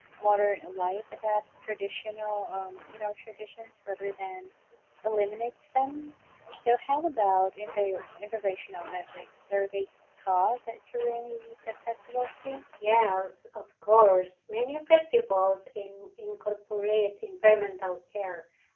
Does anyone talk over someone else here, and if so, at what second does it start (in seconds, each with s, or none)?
none